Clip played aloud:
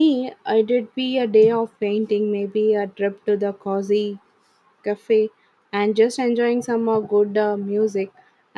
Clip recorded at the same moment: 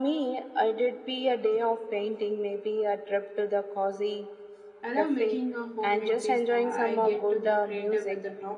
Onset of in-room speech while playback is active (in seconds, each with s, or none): 4.8 s